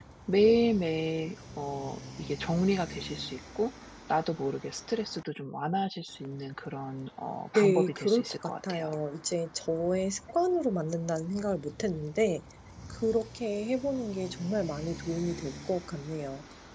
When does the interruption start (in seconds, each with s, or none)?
7.6 s